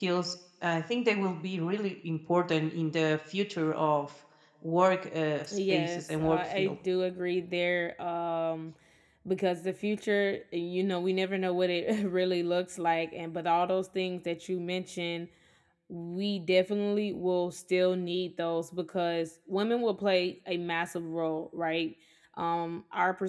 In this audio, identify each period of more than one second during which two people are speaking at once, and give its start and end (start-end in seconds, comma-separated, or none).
5.5-6.8